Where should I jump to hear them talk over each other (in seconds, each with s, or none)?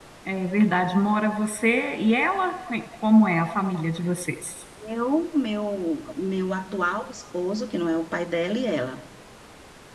none